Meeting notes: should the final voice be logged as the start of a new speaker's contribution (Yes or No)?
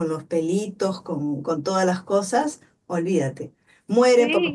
Yes